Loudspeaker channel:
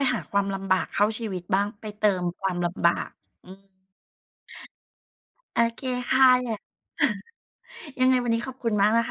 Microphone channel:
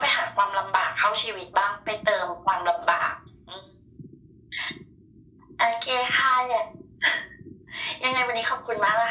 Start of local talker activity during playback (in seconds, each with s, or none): none